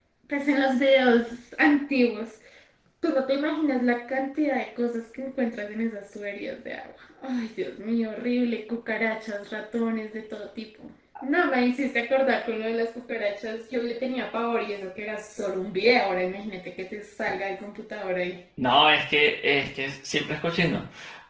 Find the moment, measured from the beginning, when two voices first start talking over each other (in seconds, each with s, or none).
none